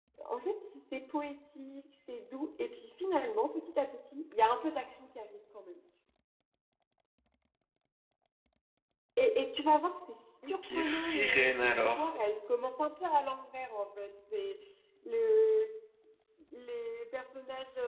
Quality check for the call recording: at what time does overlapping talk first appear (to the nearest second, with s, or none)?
10 s